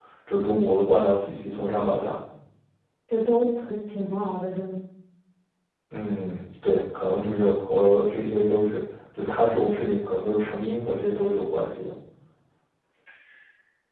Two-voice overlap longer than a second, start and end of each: none

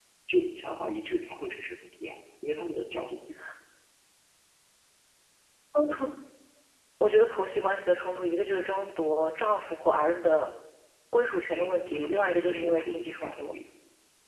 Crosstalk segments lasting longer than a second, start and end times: 11.5-13.6

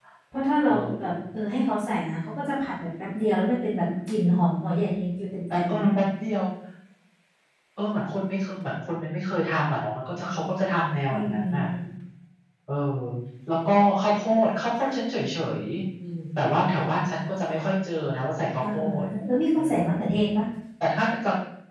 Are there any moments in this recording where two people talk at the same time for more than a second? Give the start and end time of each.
none

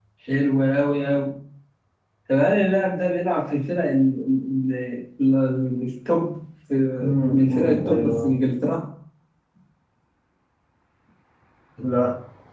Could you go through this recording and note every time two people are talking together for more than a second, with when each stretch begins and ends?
7.0-8.3

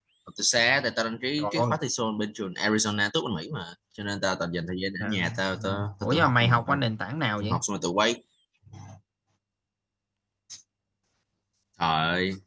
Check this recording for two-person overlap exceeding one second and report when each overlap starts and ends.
5.0-6.8

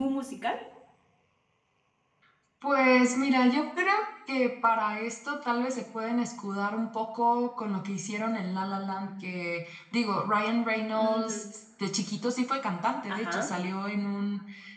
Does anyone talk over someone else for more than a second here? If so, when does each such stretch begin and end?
none

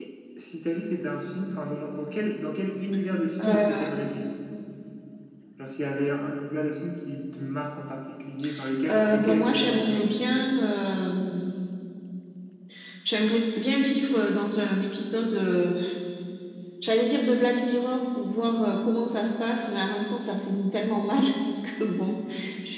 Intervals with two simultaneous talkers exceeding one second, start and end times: 8.9-10.2

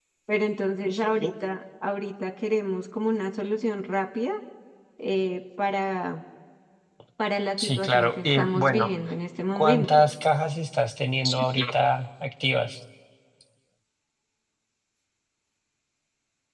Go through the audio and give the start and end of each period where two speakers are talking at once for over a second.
7.6-8.9

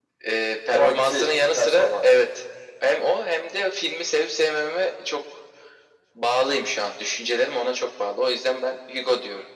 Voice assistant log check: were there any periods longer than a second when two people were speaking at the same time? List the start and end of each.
0.7-2.0

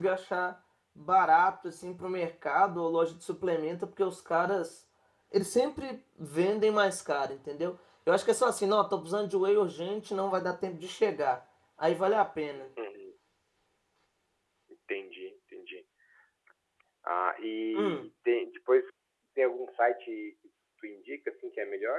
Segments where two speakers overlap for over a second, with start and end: none

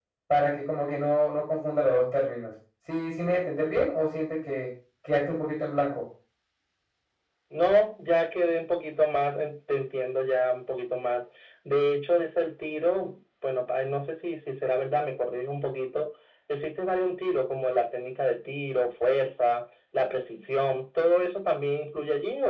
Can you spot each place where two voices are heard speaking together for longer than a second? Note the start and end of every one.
none

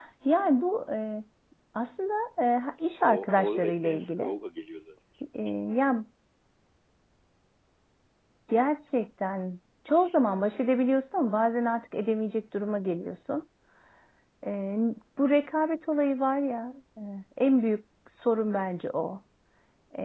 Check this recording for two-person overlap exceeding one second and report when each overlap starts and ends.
3.0-4.3

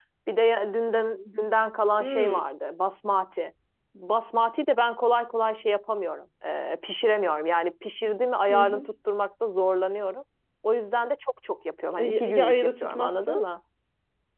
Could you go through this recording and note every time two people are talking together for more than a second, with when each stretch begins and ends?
11.9-13.4

